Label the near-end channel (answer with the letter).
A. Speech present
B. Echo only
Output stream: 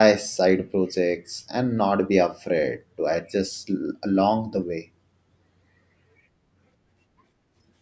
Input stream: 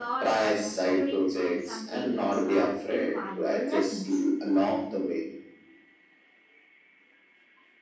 A